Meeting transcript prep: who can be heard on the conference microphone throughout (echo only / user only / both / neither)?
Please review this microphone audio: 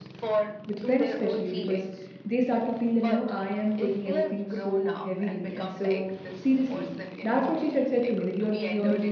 both